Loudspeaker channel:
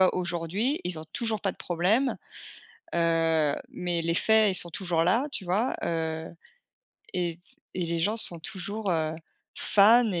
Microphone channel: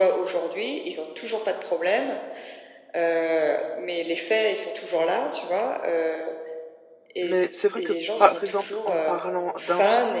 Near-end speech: present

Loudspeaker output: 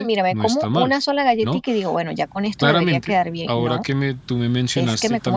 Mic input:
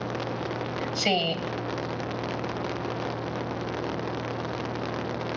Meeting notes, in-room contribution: present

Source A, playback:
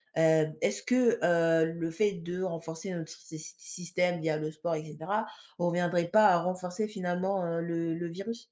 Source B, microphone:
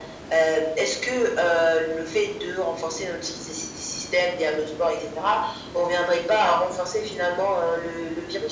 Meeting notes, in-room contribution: none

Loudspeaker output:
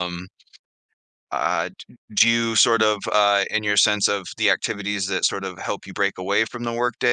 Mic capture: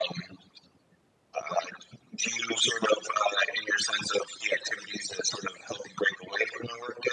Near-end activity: none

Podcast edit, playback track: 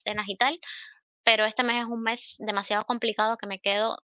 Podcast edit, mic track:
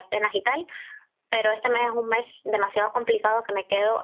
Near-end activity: none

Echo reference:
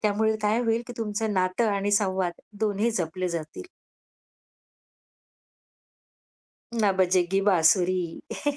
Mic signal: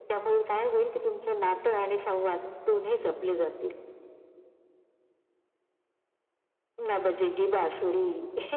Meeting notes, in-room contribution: none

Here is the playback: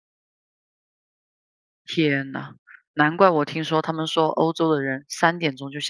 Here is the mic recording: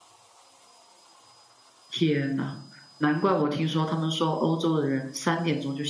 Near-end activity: none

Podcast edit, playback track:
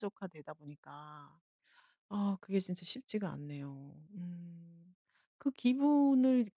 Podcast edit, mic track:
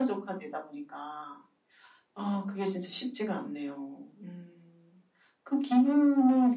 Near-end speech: none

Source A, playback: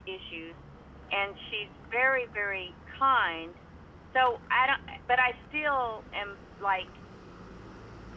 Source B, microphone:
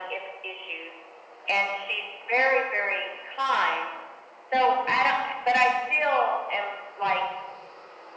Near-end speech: none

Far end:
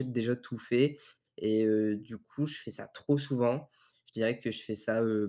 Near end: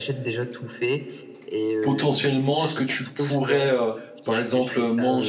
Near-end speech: present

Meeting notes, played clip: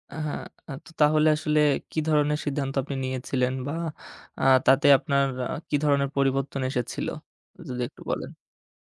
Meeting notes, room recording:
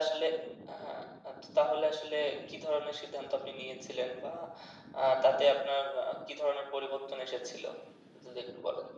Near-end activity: none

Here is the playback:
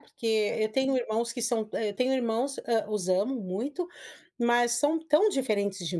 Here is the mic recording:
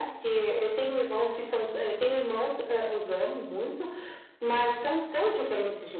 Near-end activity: none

